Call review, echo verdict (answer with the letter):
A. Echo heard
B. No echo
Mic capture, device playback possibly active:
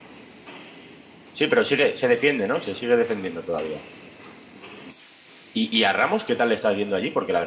B